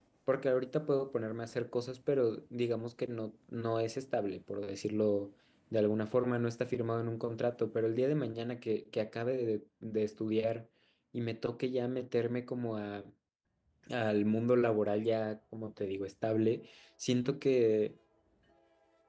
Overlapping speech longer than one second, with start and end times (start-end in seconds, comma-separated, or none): none